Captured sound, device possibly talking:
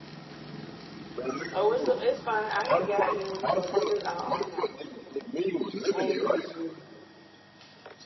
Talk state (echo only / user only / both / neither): both